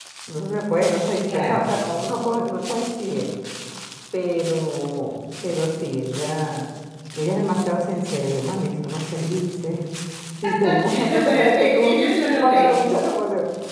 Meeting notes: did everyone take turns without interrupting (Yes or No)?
No